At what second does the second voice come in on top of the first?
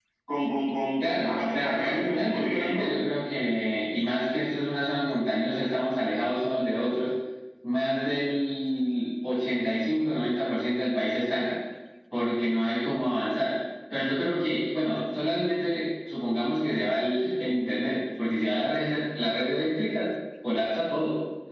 1.0 s

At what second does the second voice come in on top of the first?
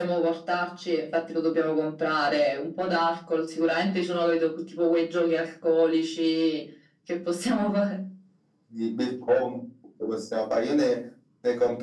none

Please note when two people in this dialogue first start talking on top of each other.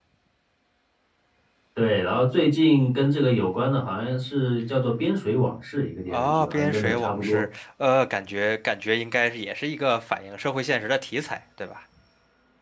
6.1 s

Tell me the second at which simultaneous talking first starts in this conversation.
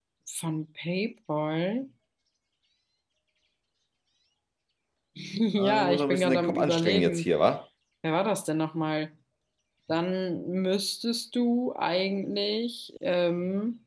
5.6 s

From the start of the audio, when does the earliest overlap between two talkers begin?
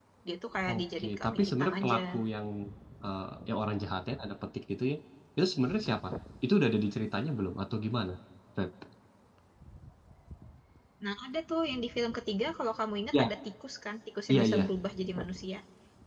0.7 s

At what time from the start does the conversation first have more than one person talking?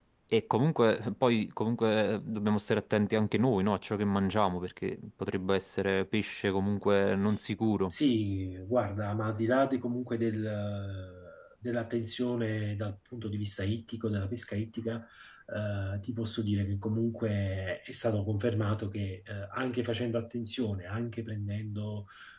none

